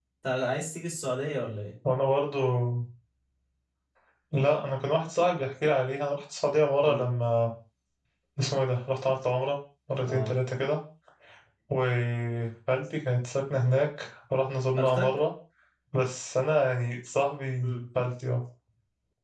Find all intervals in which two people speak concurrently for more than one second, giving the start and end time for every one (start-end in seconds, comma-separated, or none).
none